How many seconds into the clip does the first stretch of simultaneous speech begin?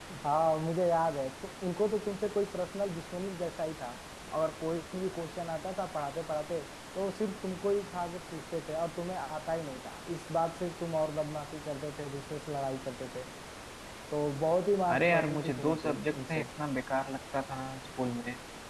14.9 s

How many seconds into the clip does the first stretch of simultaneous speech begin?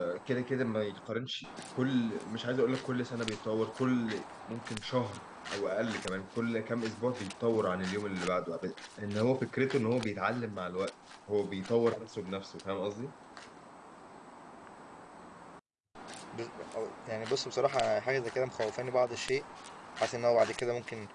none

